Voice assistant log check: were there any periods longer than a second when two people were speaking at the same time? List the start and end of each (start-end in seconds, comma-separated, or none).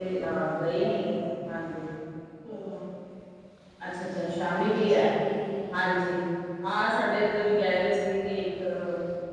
none